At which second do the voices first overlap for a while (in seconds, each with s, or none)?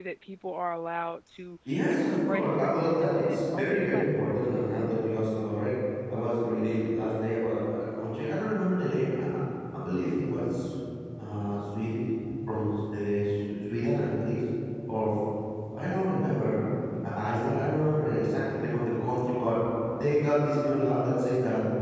1.6 s